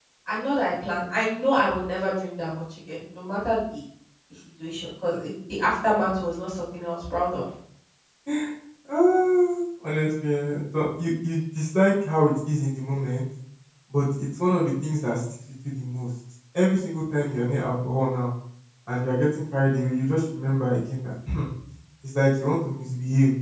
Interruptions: none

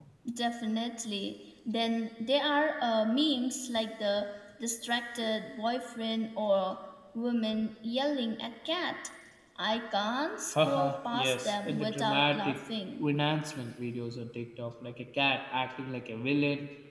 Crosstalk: present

